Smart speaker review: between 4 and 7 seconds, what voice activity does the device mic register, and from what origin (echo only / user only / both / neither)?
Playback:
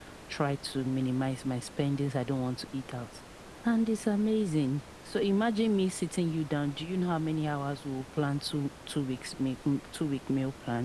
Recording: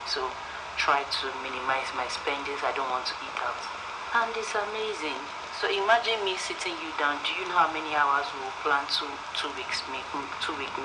echo only